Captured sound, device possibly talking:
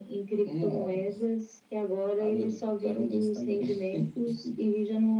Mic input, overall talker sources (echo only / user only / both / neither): echo only